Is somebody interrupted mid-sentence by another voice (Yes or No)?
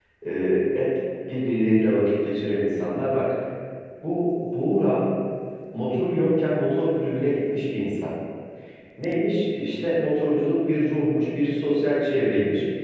No